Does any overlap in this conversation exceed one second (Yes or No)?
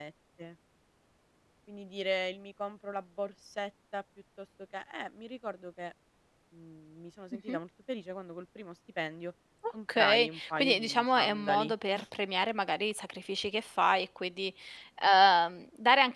Yes